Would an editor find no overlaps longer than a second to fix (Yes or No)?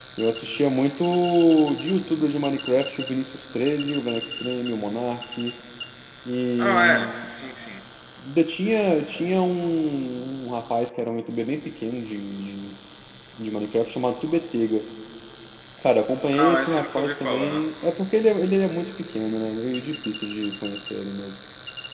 No